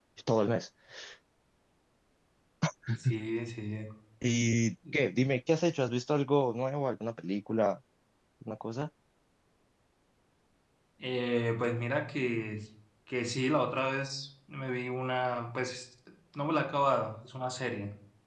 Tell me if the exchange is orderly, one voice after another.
Yes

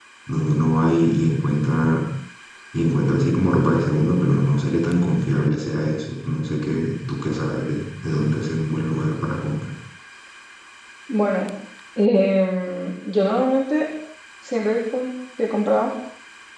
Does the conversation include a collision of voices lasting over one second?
No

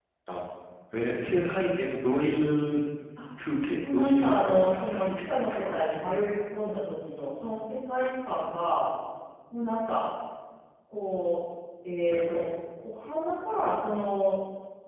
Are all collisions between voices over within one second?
No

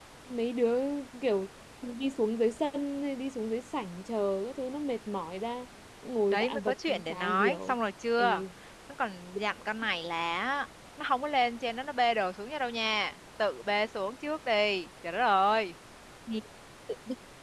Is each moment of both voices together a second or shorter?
No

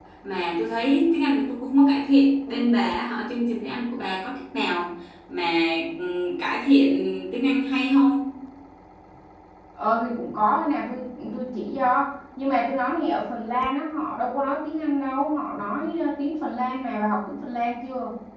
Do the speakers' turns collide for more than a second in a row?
No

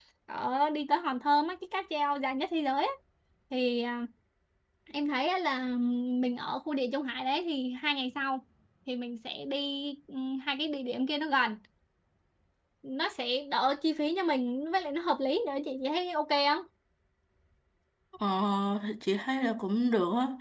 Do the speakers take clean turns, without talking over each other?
Yes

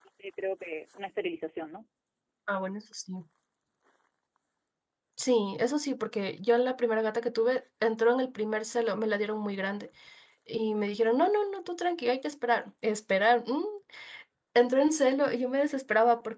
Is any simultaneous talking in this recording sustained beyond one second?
No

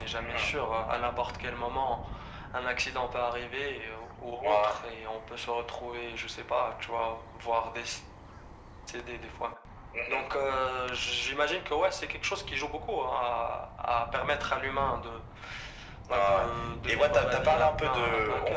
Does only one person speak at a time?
No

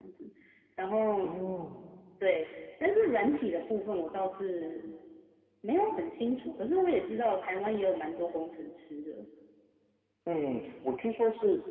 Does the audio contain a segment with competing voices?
No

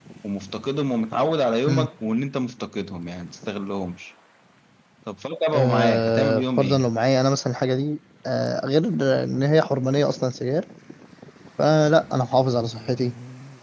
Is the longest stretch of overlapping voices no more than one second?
No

